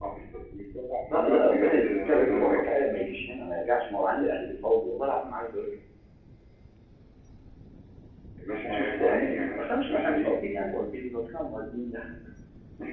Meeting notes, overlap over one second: present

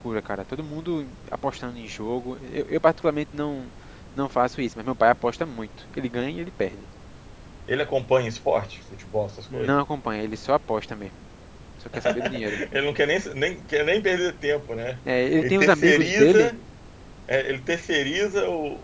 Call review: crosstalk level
present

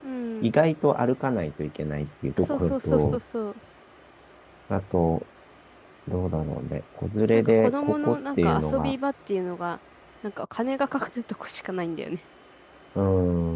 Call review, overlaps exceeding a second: present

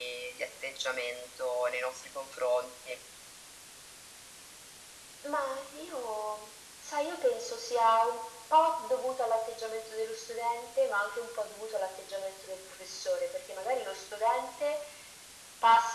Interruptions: none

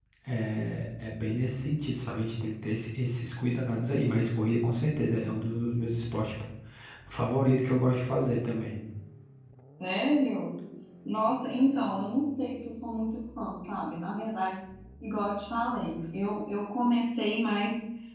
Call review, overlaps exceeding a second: none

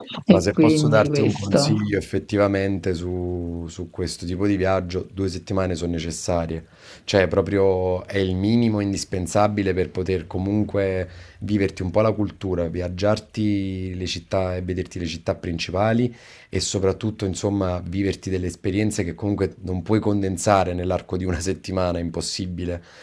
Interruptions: present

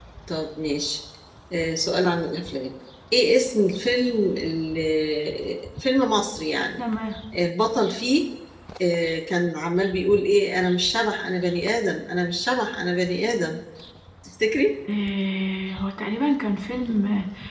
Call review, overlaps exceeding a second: none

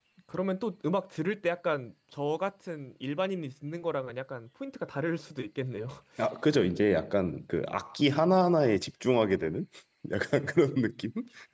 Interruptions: none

